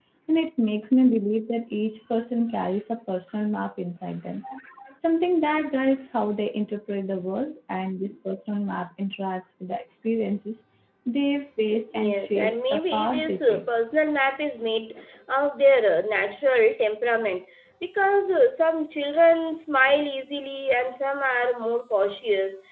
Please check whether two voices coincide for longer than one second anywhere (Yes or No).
Yes